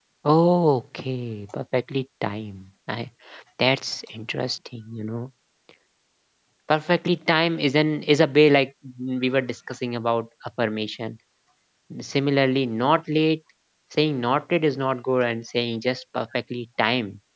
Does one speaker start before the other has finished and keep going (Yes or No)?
No